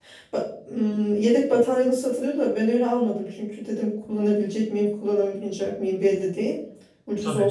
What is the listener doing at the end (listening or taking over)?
listening